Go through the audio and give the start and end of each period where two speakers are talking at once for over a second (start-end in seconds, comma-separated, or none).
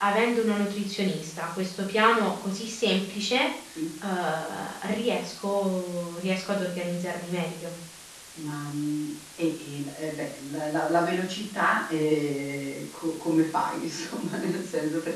none